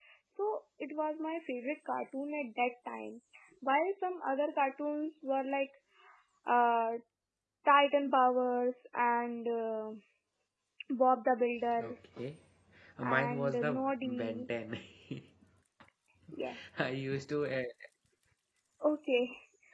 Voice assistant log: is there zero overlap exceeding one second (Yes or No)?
No